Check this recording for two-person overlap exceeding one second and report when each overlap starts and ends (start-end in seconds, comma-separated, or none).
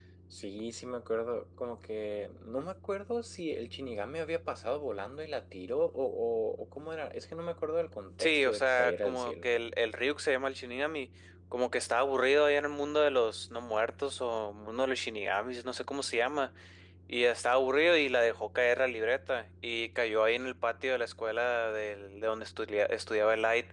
8.2-9.5